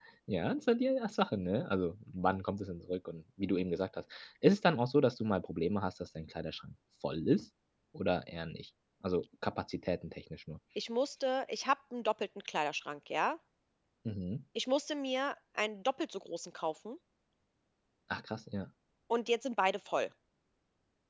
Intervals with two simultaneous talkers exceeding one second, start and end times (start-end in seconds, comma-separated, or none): none